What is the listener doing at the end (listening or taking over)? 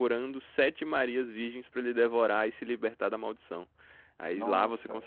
listening